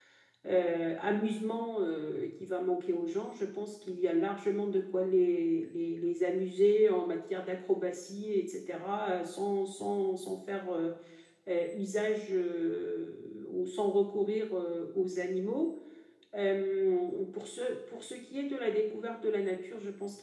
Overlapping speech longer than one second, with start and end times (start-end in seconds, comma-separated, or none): none